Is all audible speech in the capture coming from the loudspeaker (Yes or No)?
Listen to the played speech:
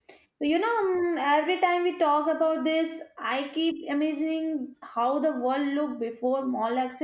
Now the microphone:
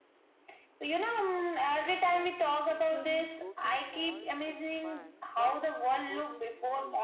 No